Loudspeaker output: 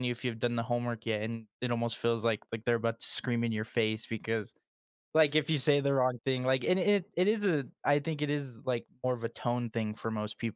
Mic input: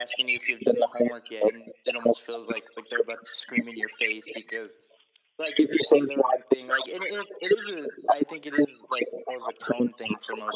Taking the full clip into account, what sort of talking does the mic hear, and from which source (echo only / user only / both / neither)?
echo only